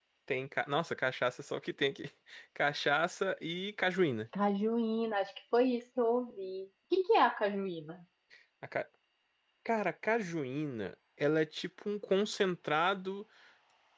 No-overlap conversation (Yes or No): Yes